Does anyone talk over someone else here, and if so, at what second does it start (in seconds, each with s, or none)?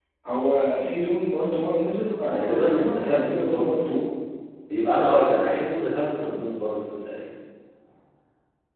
2.2 s